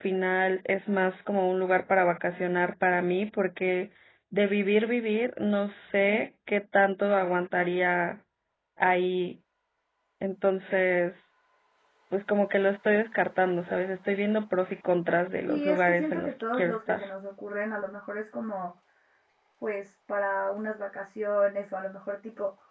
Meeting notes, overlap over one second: present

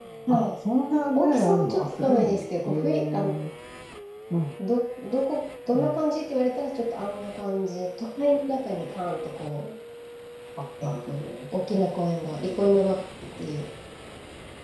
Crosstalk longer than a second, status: present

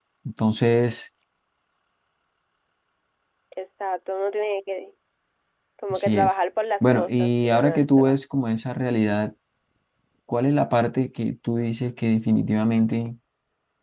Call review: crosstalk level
present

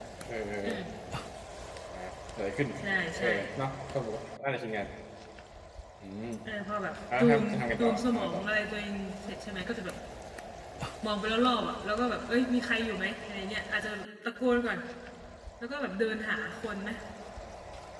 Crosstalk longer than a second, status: present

